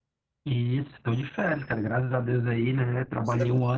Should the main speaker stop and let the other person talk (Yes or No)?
No